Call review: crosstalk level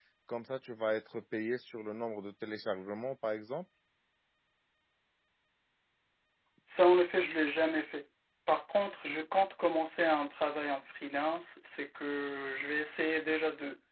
none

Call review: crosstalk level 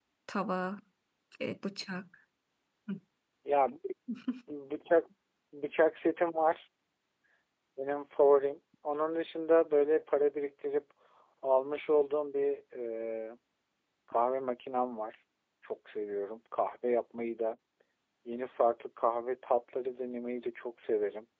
none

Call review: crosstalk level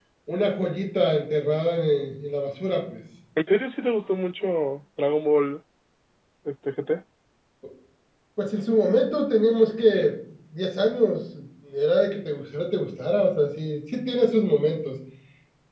none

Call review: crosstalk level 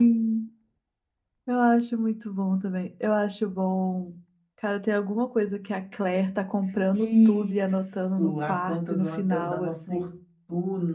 present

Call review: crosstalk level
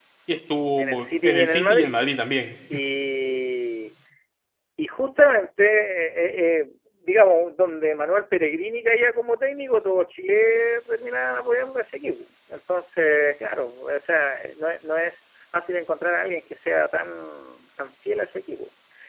present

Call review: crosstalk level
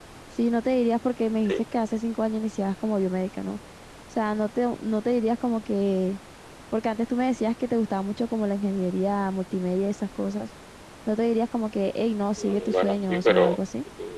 present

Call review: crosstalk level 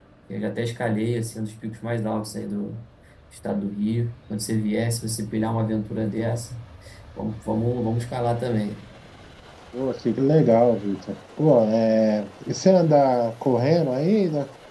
none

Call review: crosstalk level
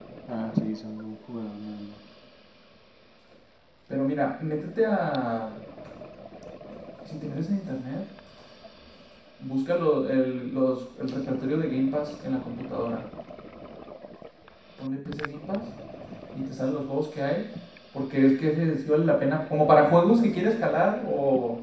none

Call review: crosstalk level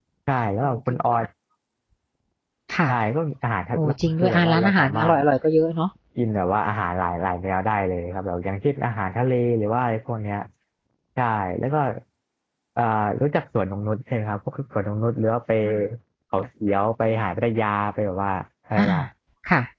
present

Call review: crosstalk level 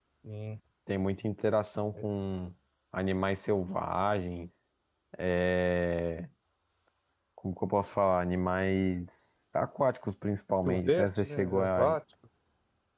present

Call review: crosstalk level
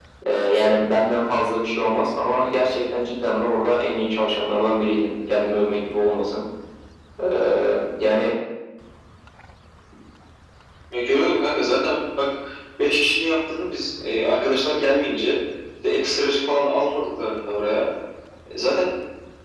none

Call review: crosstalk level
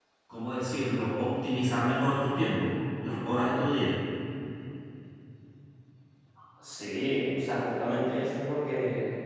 none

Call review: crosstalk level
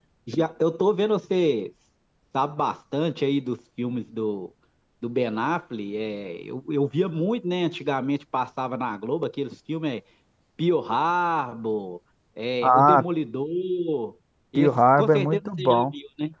present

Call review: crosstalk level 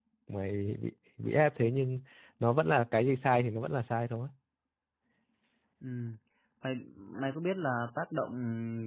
none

